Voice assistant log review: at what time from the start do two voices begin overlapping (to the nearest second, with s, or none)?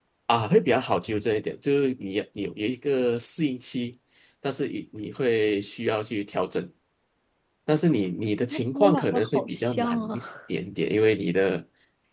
9 s